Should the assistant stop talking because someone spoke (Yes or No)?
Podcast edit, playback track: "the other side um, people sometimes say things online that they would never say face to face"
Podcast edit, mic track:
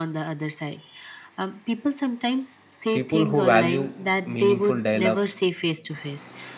Yes